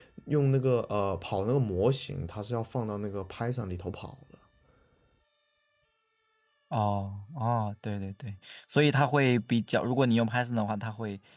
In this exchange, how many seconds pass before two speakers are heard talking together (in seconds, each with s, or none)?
none